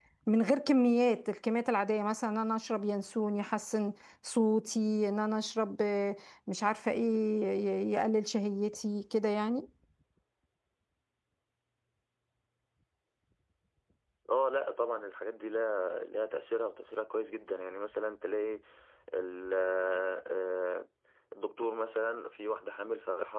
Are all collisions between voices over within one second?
Yes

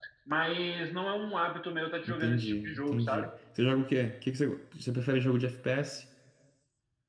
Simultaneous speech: Yes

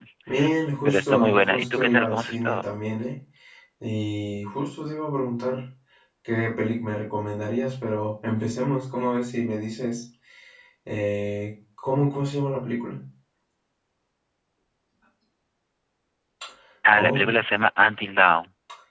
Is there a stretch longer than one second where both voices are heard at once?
Yes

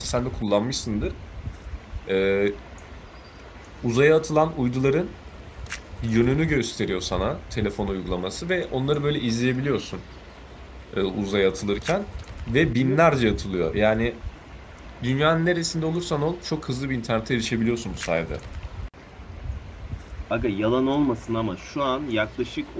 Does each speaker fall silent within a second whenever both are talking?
Yes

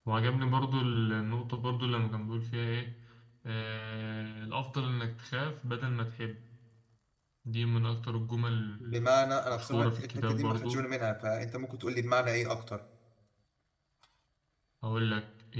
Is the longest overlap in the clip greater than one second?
Yes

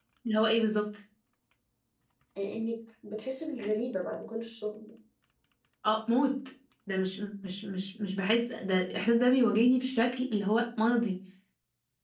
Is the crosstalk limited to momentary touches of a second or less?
Yes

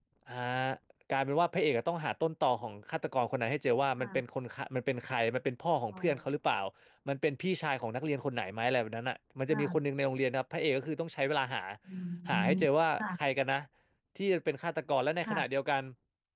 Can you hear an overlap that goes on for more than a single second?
No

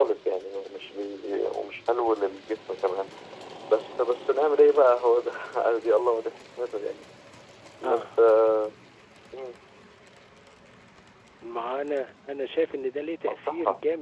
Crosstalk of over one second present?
No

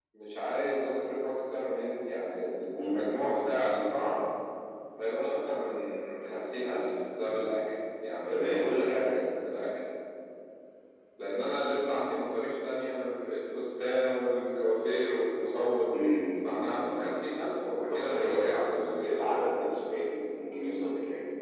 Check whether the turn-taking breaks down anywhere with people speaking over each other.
Yes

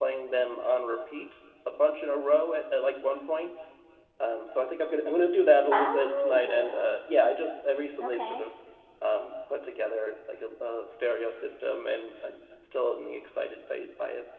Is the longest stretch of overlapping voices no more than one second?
No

